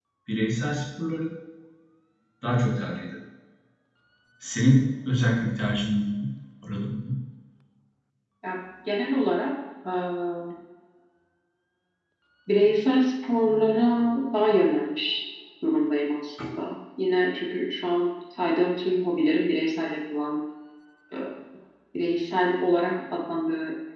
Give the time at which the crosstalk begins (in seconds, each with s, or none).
none